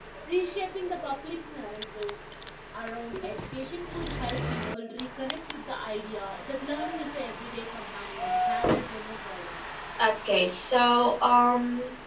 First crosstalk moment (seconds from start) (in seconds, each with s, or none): none